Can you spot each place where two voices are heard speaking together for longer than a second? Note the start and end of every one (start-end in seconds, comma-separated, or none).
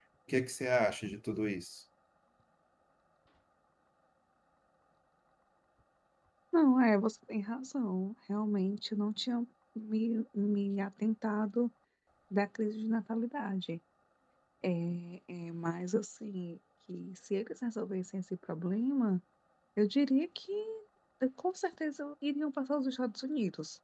none